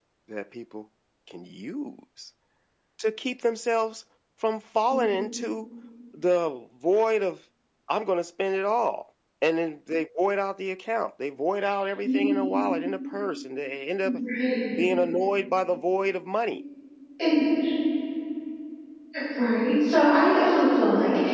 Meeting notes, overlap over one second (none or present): none